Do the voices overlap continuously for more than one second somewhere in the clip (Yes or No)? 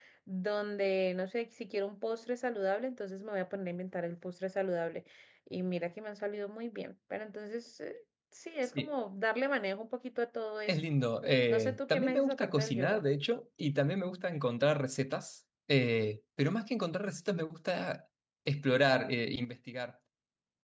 Yes